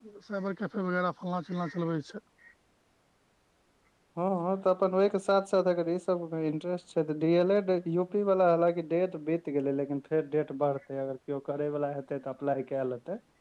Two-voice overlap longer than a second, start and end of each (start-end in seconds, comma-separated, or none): none